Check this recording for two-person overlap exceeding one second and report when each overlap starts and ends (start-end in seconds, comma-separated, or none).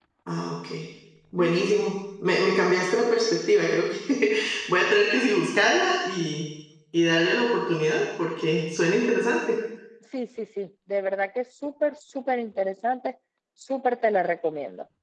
none